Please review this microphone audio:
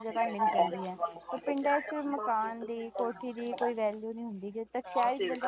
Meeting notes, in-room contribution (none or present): present